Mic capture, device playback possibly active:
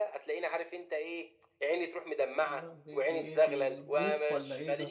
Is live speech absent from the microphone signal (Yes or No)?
No